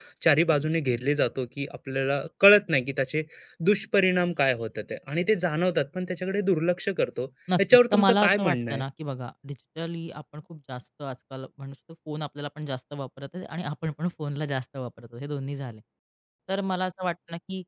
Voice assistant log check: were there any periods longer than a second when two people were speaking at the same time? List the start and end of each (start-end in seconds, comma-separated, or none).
7.6-8.8